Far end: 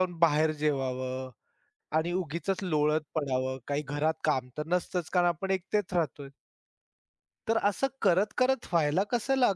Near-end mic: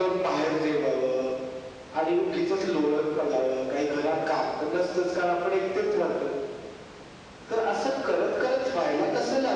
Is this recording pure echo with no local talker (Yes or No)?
Yes